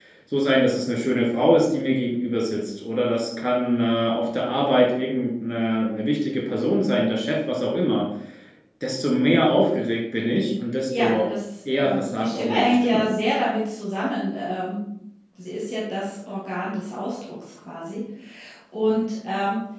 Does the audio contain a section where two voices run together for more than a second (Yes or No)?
Yes